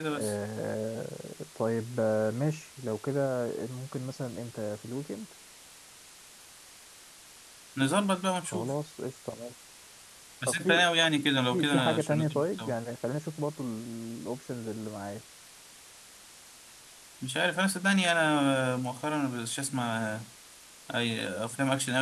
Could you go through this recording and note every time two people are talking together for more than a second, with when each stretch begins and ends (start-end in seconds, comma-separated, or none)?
11.5-12.7